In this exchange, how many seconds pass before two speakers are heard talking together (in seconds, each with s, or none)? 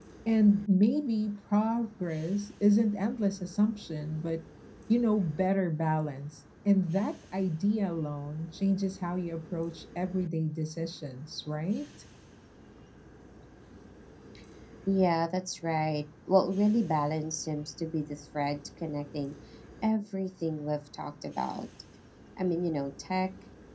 none